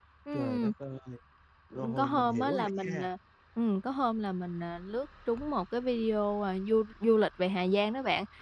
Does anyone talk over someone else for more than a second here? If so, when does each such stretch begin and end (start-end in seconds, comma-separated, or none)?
1.8-3.0